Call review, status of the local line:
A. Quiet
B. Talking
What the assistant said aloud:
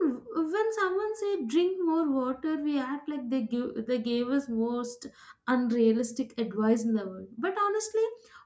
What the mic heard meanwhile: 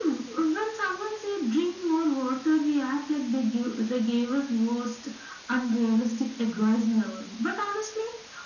A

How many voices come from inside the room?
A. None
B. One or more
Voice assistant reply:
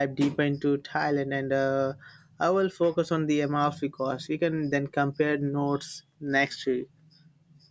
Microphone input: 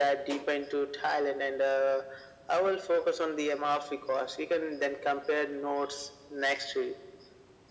A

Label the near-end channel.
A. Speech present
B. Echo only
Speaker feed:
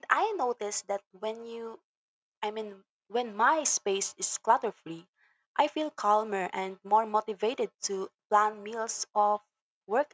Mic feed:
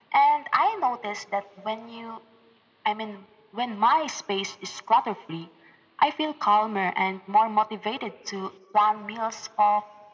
B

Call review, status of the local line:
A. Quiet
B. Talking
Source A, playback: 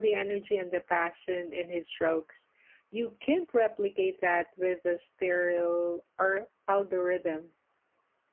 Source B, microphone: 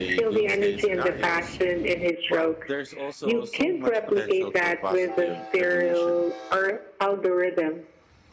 B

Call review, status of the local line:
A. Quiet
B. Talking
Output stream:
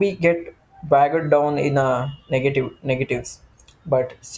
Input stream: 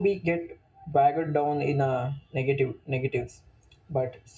A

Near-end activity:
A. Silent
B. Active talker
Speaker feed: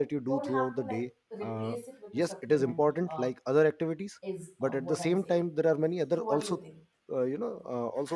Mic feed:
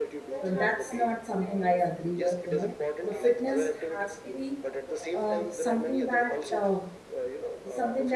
B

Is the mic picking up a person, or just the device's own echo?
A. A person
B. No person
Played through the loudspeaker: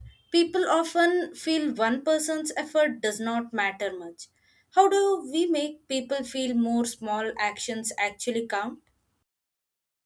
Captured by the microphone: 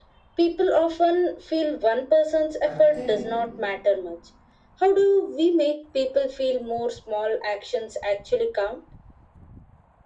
A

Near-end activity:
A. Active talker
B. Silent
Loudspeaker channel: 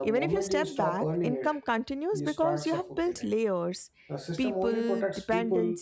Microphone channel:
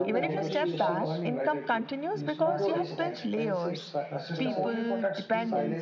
A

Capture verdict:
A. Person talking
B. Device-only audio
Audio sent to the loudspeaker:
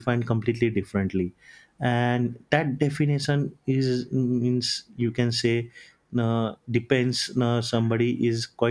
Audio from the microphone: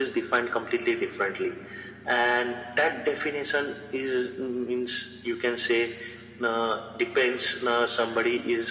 B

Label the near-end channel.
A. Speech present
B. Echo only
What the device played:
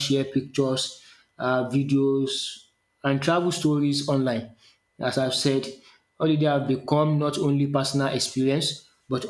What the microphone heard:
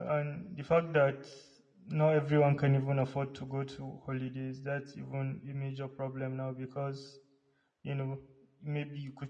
A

